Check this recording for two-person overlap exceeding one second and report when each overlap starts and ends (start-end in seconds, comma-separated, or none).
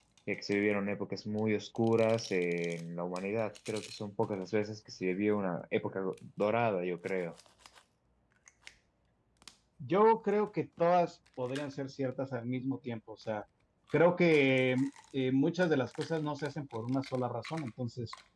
none